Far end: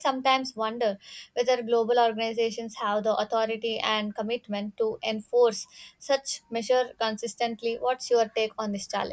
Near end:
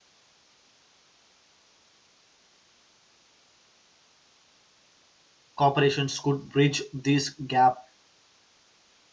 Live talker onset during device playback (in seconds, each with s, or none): 5.5 s